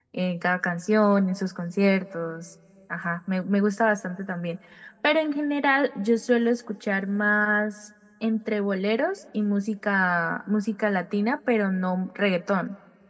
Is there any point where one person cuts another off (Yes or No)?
No